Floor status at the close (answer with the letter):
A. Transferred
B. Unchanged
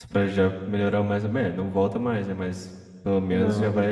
B